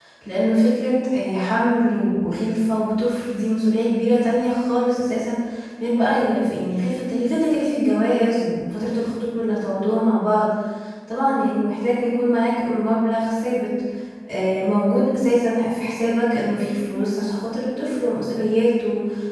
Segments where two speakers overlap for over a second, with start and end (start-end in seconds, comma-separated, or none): none